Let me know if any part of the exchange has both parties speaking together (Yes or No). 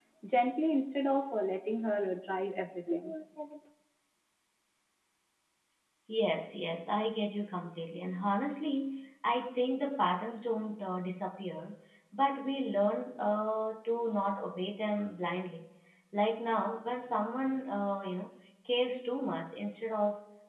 No